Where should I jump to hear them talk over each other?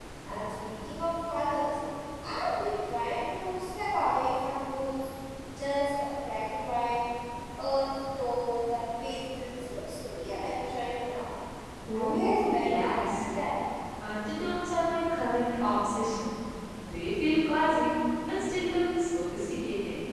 11.9 s

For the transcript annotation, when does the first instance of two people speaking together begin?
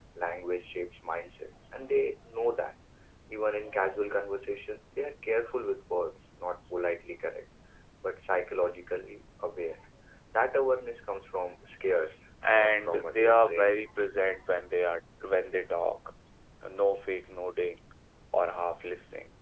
12.4 s

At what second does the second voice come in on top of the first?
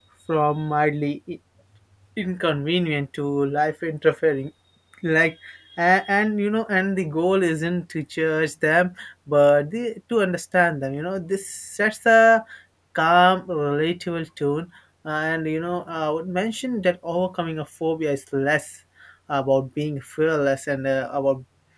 none

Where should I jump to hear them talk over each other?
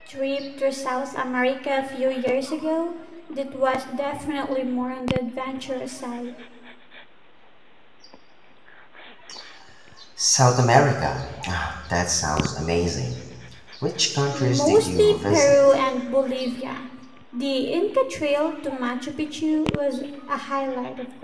14.3 s

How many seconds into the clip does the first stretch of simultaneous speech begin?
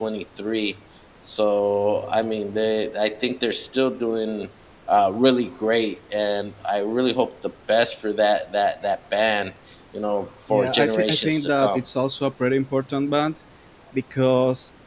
10.5 s

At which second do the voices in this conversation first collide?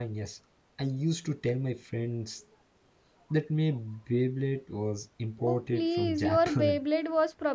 5.4 s

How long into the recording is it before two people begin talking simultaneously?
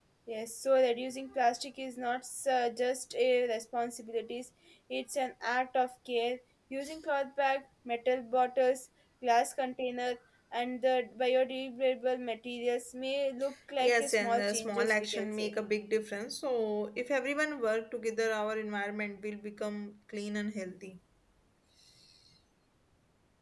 13.8 s

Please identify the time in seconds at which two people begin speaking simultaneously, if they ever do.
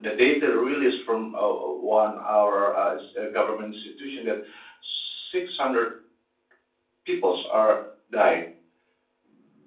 none

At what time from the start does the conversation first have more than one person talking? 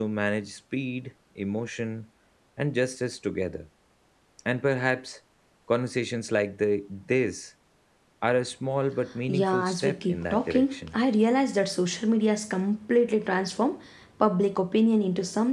9.3 s

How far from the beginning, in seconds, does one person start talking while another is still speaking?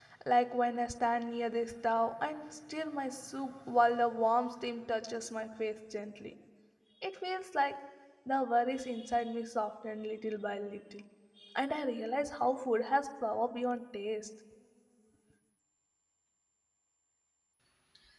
none

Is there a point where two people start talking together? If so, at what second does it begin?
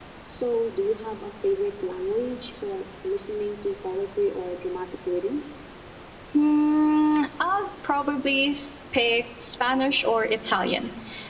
none

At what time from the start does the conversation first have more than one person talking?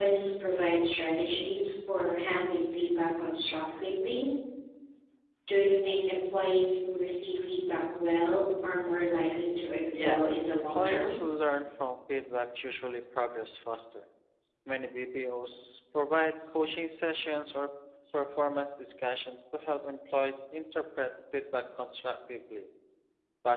9.9 s

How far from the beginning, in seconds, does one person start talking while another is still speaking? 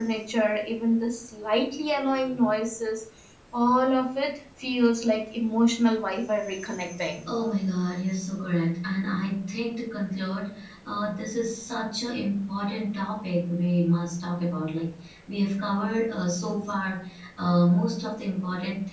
none

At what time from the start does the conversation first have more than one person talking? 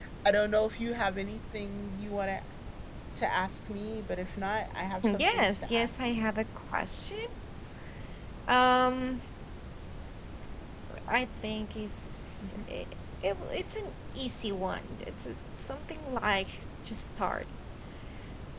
5.0 s

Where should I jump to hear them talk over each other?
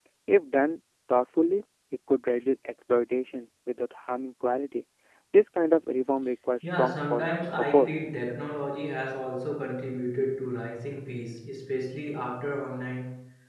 6.6 s

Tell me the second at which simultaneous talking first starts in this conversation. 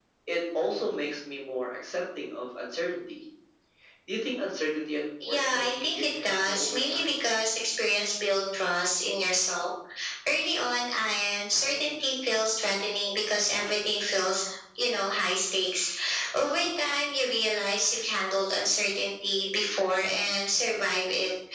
5.2 s

